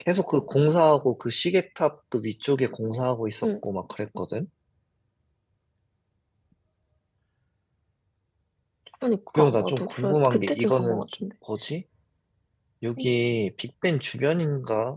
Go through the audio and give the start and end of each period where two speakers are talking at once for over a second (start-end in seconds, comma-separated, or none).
9.4-11.2